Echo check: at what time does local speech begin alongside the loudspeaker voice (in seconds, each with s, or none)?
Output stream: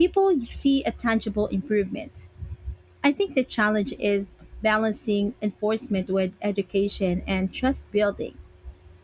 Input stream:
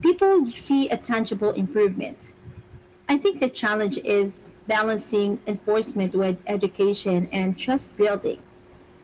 none